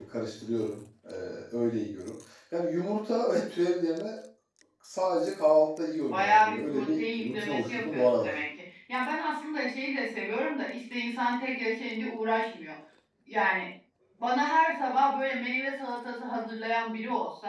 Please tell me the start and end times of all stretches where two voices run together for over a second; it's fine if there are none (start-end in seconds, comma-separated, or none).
6.1-8.3